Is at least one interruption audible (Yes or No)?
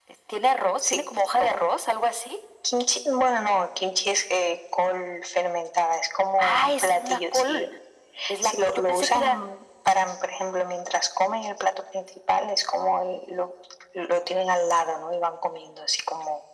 Yes